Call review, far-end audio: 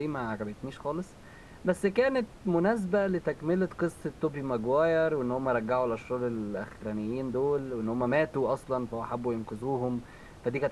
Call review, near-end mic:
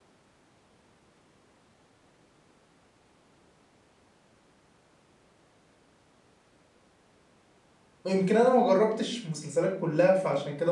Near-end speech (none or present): present